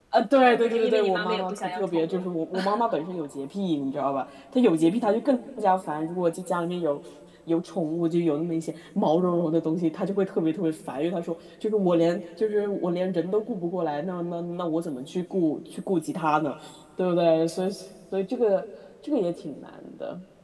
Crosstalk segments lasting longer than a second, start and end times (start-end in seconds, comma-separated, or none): 0.6-2.3